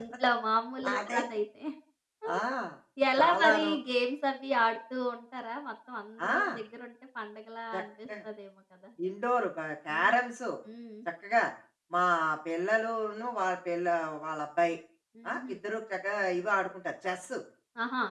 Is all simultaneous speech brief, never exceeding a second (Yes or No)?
Yes